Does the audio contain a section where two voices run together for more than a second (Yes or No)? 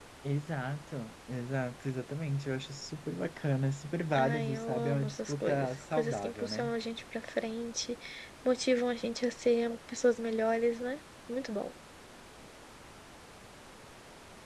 Yes